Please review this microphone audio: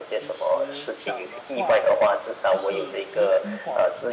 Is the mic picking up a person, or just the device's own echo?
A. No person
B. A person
B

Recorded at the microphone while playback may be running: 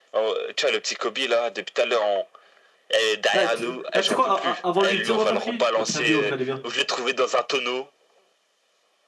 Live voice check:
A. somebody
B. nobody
A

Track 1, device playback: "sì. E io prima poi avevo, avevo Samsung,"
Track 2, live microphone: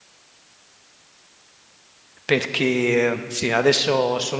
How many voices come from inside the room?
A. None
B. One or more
B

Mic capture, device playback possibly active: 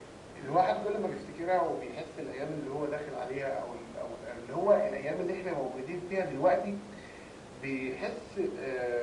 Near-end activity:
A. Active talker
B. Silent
B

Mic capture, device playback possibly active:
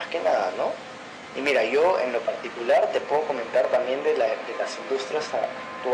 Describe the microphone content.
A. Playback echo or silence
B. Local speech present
A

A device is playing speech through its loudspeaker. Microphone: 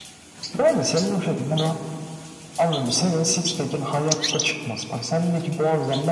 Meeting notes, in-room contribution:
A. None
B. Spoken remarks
A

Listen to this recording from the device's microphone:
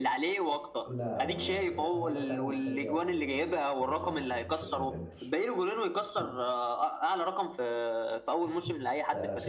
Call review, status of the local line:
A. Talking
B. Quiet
A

